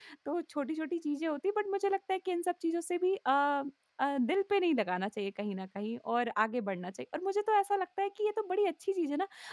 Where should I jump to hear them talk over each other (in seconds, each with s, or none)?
none